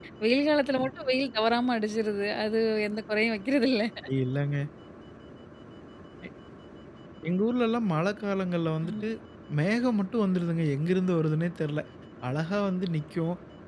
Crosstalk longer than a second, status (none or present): none